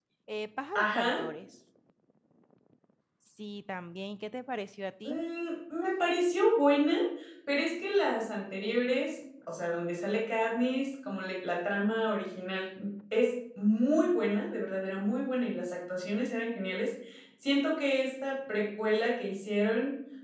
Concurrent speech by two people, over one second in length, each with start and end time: none

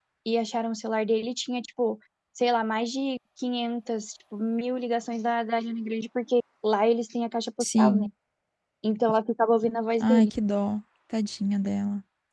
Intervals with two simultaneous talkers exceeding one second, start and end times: none

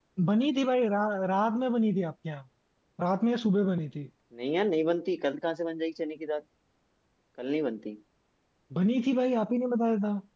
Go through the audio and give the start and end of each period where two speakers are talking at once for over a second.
none

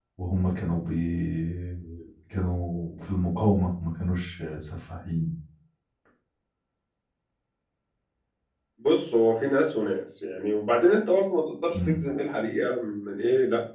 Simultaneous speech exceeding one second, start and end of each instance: none

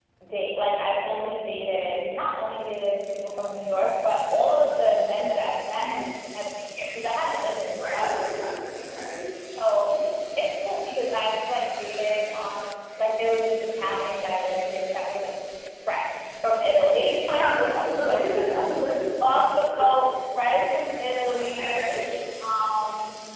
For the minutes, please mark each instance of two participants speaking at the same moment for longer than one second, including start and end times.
none

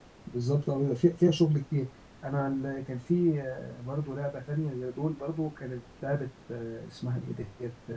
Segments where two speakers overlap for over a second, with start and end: none

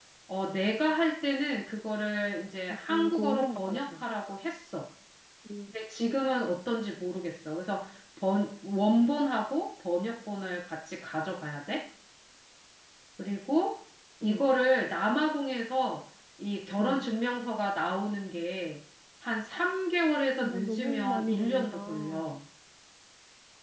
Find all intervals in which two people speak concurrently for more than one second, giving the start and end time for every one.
2.7-4.0, 20.4-22.4

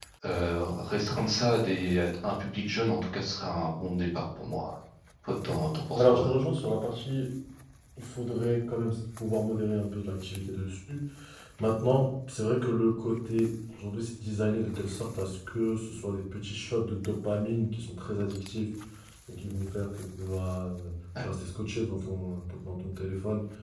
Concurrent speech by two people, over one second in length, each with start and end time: none

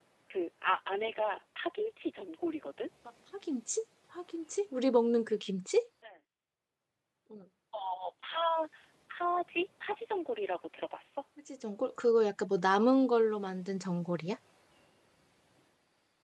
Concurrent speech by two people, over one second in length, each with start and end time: none

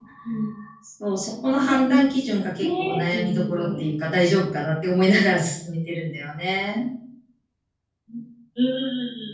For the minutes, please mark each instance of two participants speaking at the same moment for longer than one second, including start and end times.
2.6-3.8

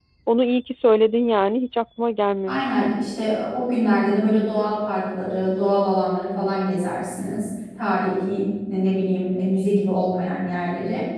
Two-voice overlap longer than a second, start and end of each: none

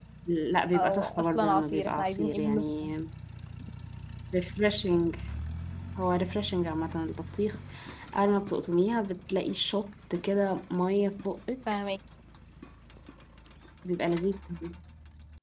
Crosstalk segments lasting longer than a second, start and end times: 0.7-2.9

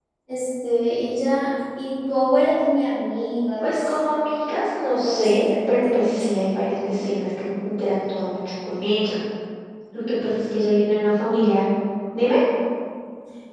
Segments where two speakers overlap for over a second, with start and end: 5.0-6.3

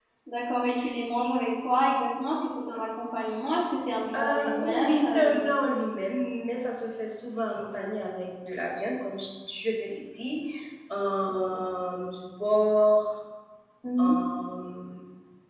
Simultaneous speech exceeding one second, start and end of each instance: 4.2-5.5

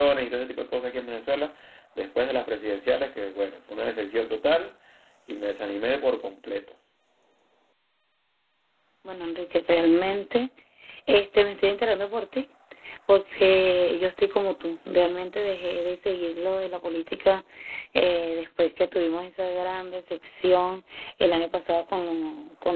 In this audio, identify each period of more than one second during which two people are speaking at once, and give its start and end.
none

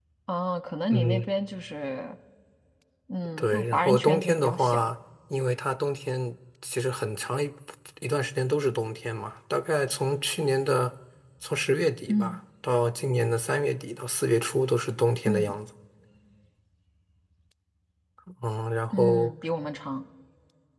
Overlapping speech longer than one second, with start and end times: 3.4-4.8

